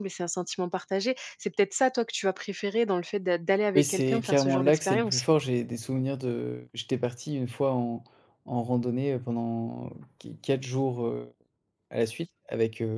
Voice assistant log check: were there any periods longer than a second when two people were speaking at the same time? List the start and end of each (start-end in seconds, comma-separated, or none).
3.8-5.2